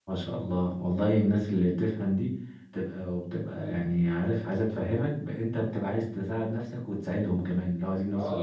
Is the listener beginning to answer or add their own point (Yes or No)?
Yes